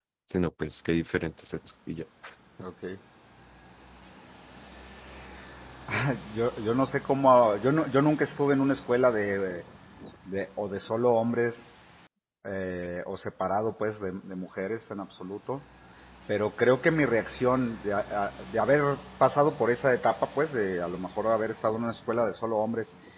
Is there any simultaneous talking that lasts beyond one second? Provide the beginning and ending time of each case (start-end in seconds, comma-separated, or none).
none